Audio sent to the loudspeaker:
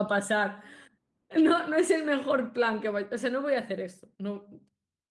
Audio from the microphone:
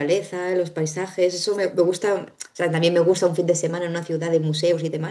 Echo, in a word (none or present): none